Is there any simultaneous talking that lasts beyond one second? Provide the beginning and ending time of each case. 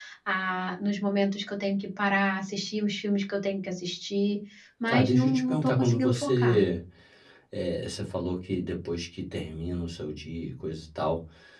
4.9-6.6

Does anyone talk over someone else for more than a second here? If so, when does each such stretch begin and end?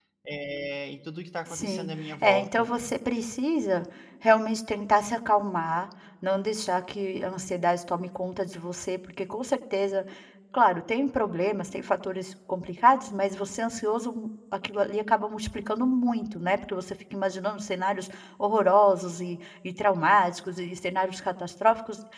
1.5-2.7

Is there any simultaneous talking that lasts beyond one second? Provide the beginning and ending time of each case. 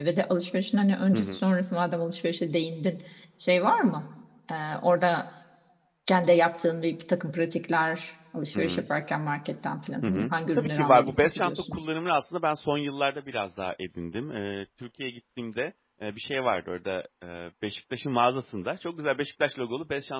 10.0-11.8

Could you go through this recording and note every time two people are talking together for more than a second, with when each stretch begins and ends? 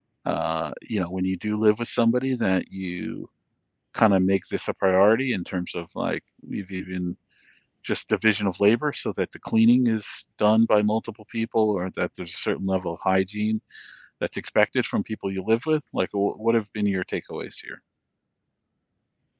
none

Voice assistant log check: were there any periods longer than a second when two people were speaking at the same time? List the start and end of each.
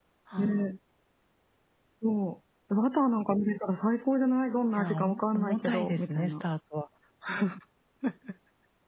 4.8-6.4

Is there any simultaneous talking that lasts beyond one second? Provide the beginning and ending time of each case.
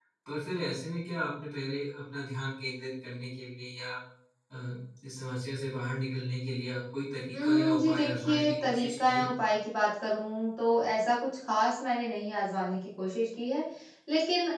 7.3-9.3

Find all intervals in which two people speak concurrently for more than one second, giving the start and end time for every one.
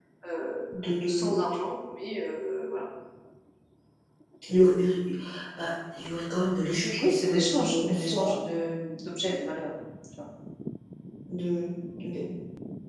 7.0-8.3

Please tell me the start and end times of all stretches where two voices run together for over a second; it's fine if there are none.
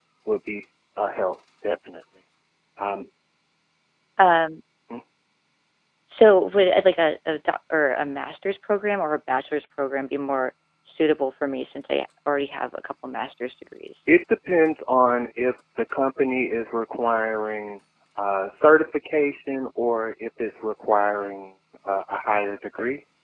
none

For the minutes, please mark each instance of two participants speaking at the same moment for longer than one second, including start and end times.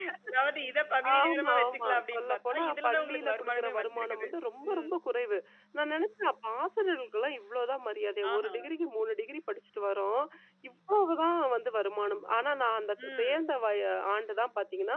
1.2-4.3

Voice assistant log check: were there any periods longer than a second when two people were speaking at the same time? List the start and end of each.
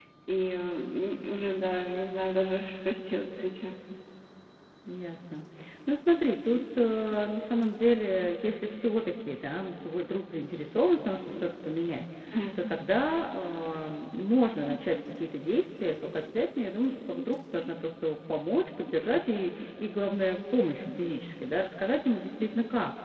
none

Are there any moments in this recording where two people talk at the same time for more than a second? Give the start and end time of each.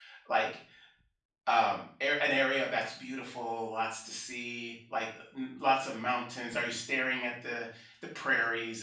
none

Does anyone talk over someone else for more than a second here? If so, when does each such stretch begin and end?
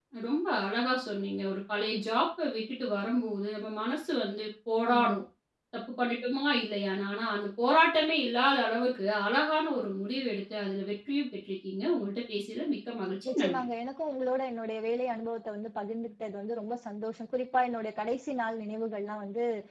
none

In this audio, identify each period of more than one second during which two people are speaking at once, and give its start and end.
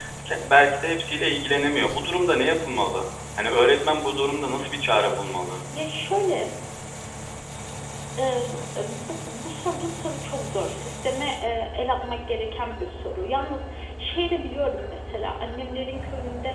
none

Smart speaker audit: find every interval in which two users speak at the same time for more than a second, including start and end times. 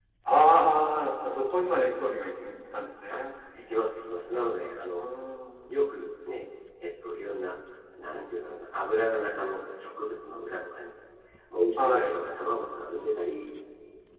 none

